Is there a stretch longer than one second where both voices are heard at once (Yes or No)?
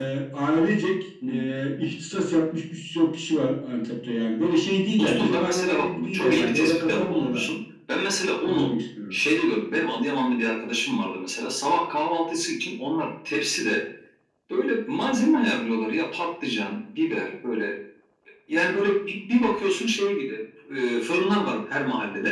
Yes